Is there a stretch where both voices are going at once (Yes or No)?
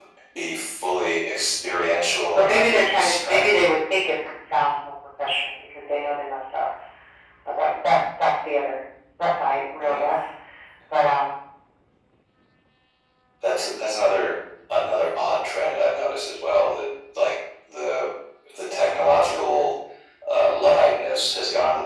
Yes